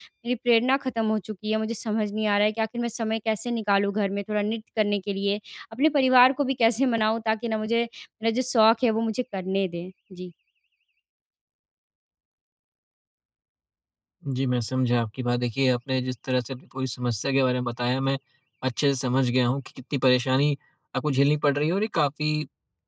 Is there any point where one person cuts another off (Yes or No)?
No